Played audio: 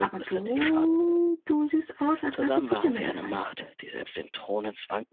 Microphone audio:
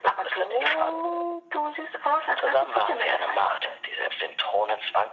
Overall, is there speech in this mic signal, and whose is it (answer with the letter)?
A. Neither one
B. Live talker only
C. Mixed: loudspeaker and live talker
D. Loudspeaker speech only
D